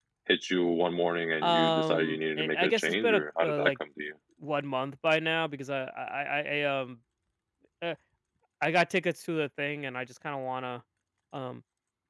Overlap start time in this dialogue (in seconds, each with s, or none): 1.4 s